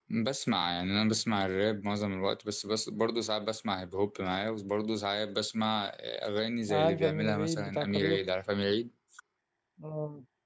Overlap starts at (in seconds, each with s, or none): 6.7 s